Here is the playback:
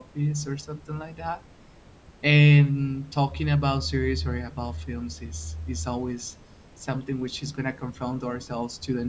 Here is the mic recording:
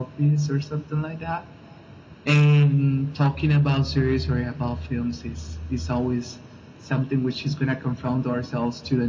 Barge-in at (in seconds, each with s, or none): none